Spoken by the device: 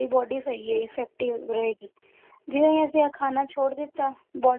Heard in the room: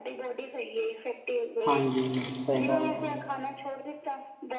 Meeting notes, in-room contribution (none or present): present